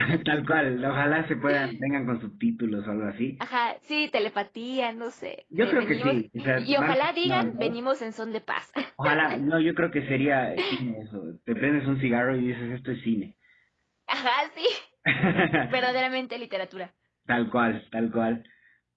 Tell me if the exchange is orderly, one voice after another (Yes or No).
No